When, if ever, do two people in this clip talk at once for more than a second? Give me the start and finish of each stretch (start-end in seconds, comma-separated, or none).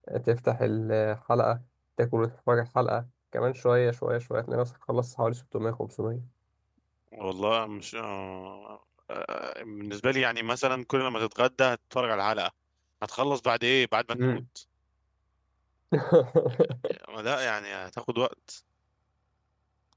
none